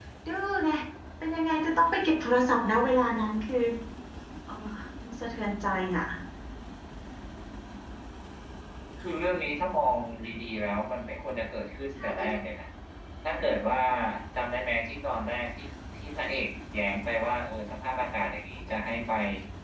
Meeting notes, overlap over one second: none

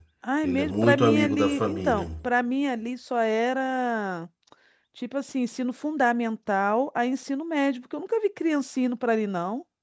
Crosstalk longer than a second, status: present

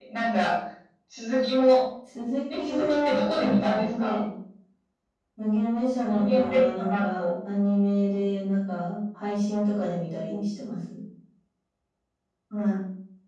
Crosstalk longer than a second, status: present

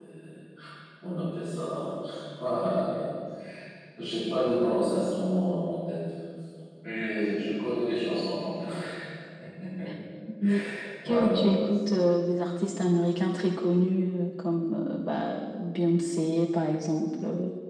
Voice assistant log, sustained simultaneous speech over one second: none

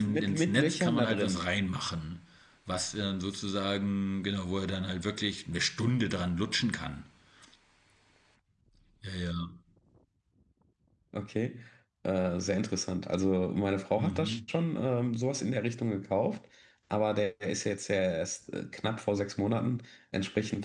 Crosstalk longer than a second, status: present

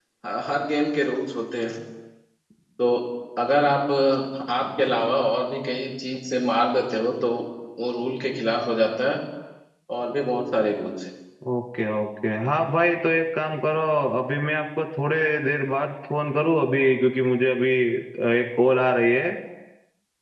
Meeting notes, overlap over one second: none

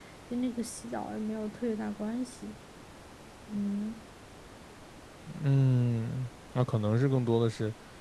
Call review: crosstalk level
none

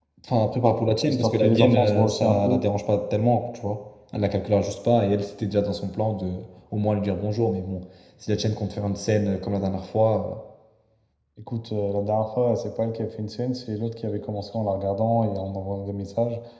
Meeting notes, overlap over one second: present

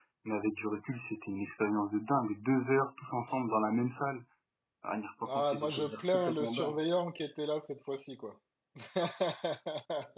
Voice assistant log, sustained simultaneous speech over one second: present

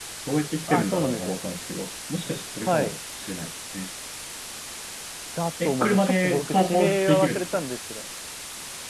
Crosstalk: present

